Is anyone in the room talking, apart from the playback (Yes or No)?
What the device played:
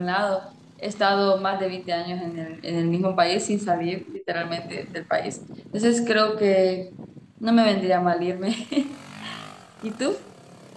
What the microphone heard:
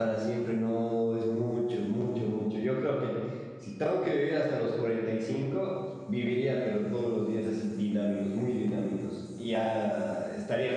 Yes